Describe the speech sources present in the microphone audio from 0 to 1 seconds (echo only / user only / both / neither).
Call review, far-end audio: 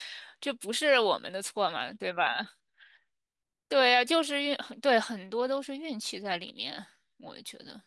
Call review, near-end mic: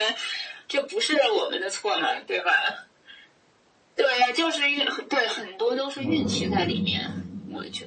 echo only